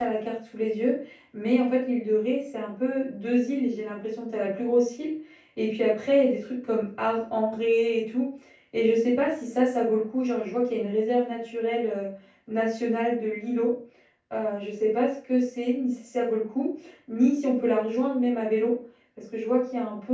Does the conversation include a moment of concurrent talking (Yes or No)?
No